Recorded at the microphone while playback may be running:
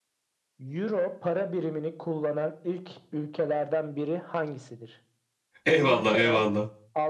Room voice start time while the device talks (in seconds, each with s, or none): 5.7 s